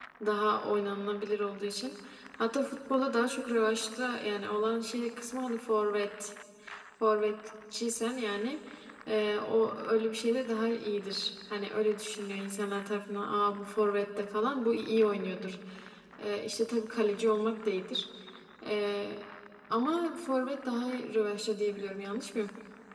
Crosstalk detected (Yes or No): No